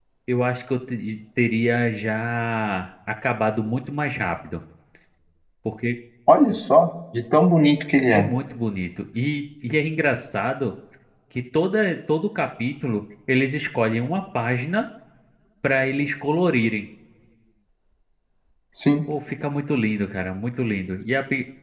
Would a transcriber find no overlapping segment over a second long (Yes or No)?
Yes